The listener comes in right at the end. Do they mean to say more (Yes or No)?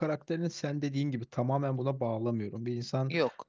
No